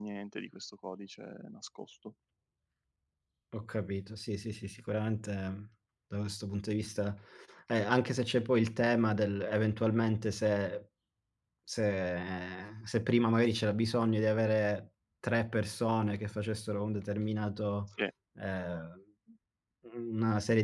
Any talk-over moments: No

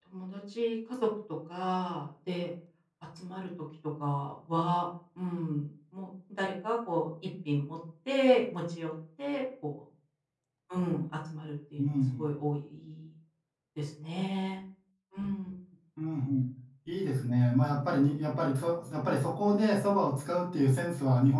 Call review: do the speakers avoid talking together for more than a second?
Yes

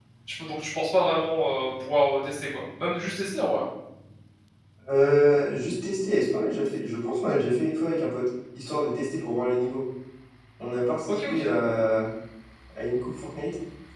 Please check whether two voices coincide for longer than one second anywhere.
No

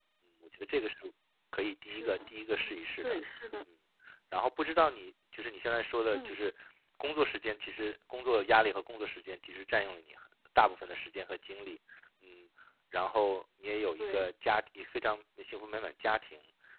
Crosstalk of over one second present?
Yes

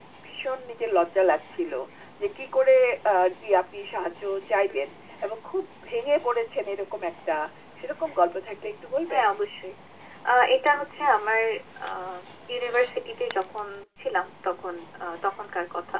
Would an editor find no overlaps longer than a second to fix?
Yes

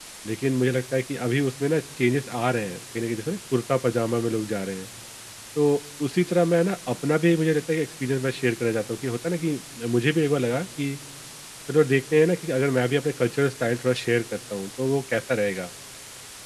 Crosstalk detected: No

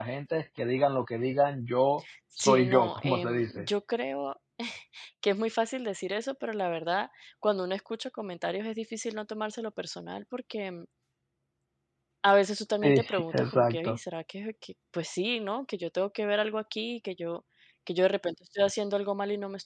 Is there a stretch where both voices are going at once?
Yes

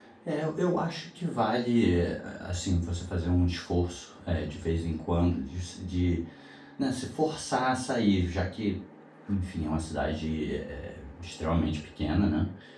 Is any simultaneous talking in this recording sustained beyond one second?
No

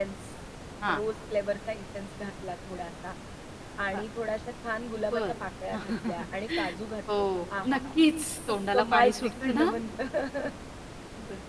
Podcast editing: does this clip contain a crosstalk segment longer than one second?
Yes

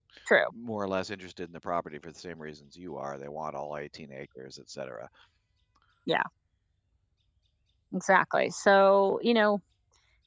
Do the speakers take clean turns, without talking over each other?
Yes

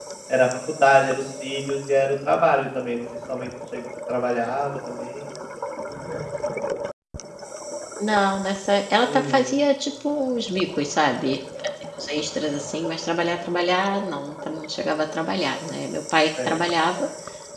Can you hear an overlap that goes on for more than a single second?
No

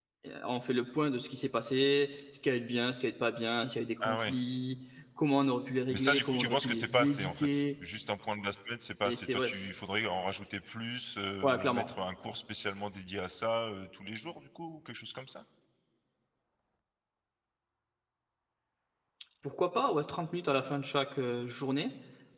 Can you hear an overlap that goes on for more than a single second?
Yes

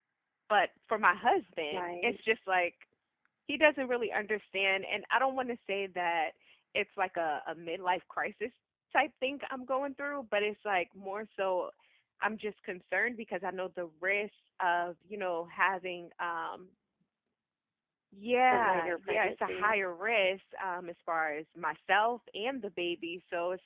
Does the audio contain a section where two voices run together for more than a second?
Yes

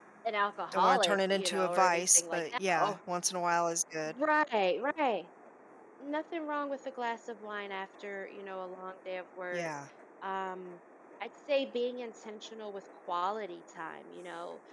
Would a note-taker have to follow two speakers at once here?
Yes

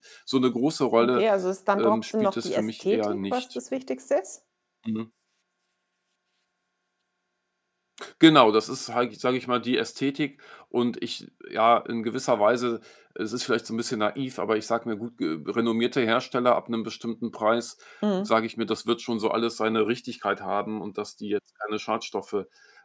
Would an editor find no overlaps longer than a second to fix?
No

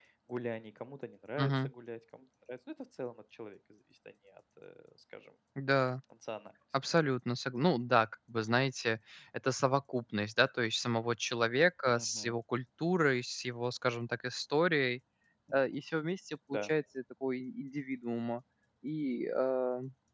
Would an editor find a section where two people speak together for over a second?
No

